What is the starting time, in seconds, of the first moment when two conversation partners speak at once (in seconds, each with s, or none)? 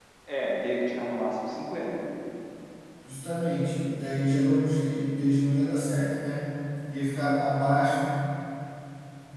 none